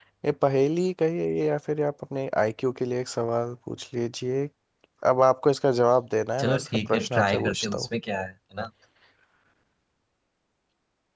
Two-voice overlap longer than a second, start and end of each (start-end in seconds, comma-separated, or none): 6.4-7.9